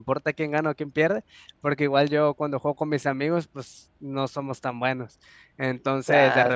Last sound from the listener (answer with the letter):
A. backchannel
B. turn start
A